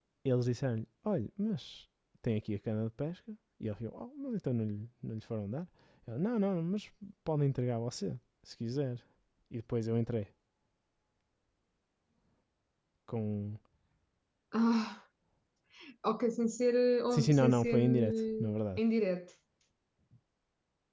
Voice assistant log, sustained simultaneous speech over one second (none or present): present